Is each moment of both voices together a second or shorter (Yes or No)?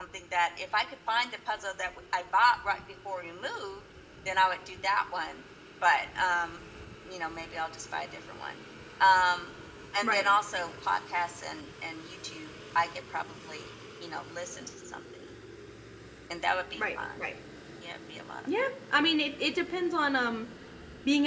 Yes